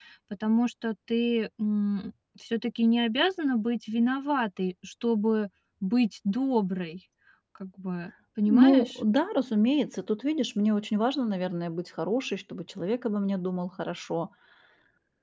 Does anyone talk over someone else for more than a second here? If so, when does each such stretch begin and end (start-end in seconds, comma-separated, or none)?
none